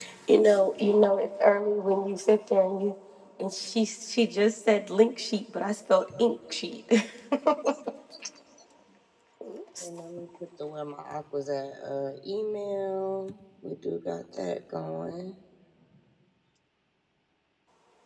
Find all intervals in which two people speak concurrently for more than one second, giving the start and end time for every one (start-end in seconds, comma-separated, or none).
none